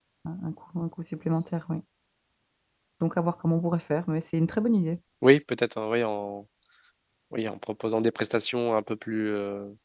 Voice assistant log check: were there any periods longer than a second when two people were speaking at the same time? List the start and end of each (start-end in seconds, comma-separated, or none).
none